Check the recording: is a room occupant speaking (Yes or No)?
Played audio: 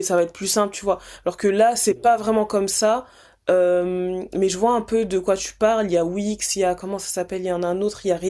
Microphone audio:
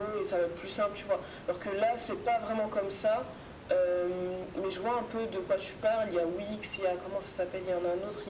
No